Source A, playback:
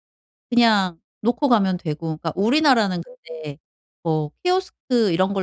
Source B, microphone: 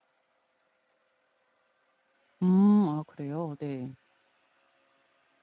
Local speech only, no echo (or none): 음. 아 그래요? 네.